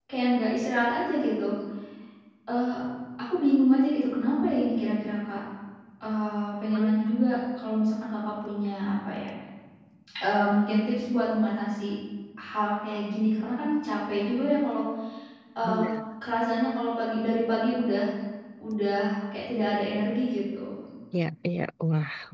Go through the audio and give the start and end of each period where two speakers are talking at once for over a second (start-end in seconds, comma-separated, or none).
none